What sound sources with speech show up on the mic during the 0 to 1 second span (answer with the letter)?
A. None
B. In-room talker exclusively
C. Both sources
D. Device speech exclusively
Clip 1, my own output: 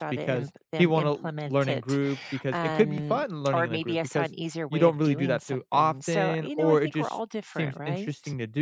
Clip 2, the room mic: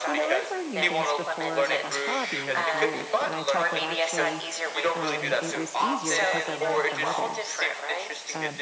C